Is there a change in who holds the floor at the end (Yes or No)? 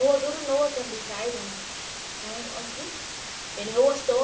No